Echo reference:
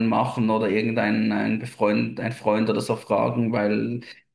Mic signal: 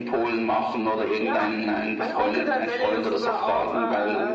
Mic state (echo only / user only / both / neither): both